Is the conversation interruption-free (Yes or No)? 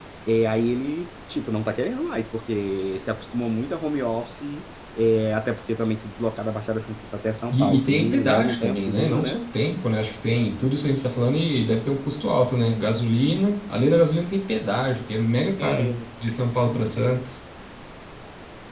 No